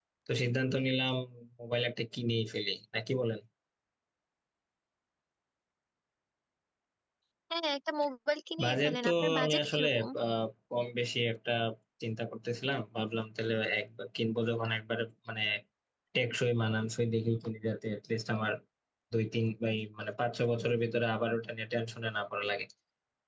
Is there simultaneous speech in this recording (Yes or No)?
Yes